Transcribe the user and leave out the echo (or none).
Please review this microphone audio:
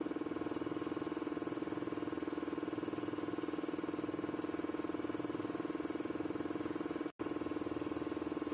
none